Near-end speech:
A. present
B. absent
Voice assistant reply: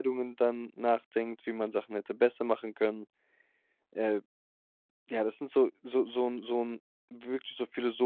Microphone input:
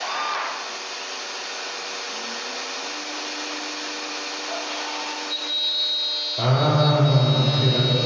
A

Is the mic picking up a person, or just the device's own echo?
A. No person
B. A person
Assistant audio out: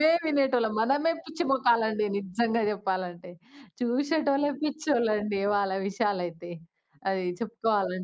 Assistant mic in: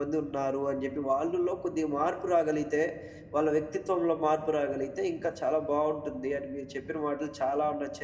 B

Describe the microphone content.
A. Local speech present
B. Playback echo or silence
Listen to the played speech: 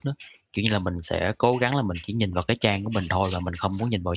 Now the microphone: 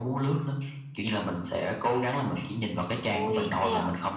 A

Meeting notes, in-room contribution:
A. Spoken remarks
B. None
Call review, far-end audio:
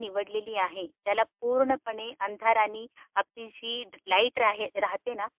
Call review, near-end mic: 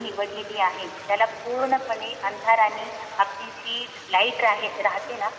B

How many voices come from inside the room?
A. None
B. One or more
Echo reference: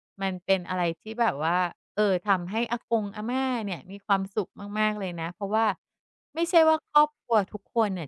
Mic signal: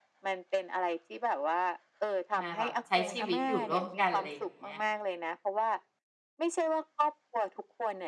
B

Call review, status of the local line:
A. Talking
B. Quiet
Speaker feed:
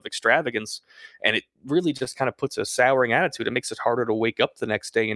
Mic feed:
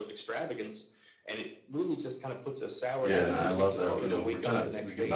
A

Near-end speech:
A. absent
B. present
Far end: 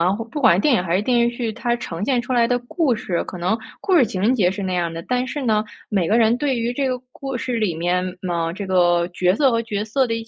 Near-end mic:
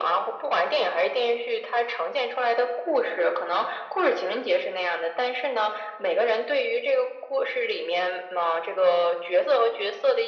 A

